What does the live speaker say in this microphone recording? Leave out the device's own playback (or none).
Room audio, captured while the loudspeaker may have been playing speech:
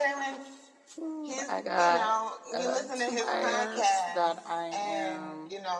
Ooh, I got uh, two buyers that I am